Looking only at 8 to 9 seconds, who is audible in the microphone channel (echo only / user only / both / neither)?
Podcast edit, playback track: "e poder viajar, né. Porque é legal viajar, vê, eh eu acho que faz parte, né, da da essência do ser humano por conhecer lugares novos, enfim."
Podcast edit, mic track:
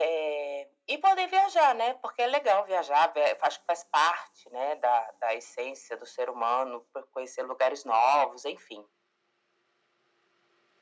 echo only